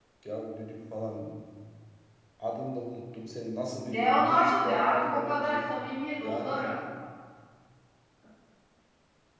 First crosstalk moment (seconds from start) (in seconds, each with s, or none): 3.8 s